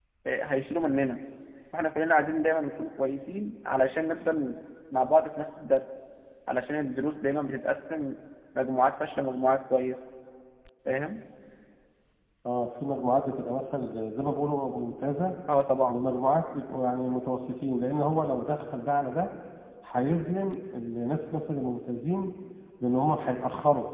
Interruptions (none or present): none